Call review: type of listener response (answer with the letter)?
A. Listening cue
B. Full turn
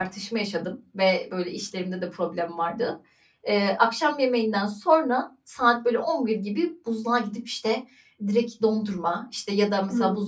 A